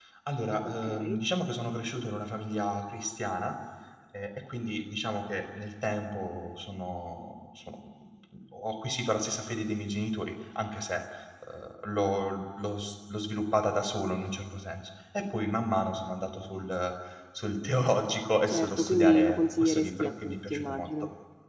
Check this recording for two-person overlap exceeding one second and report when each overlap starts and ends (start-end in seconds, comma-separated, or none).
18.5-20.9